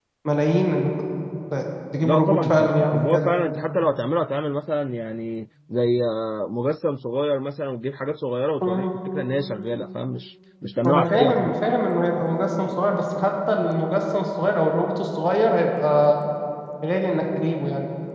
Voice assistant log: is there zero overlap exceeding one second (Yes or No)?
No